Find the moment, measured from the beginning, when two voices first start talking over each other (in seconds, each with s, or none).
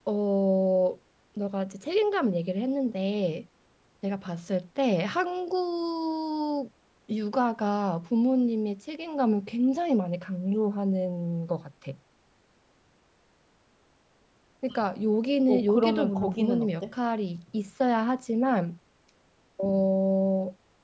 15.5 s